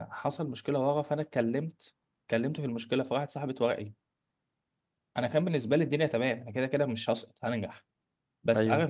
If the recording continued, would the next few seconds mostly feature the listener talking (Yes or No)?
No